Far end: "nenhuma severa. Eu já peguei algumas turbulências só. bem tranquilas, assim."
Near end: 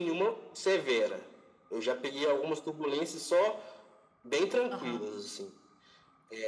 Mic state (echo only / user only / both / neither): both